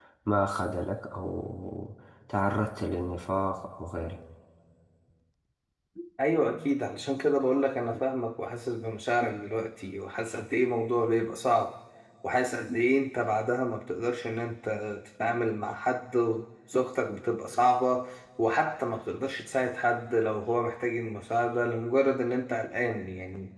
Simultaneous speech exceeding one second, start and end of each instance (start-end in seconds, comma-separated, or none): none